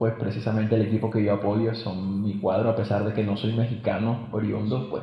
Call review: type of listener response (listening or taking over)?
listening